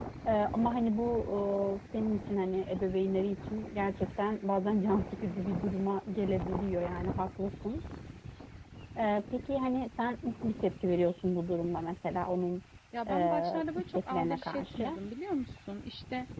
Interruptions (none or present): present